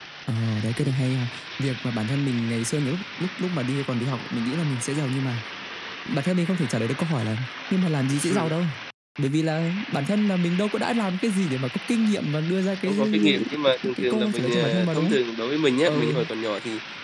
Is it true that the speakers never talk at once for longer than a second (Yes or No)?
No